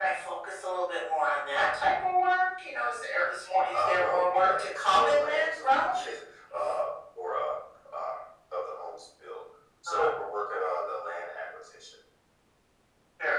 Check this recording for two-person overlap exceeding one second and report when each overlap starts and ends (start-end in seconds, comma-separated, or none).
3.7-5.9